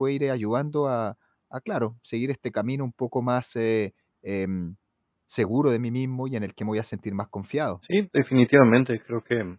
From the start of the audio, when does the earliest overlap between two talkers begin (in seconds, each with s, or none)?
none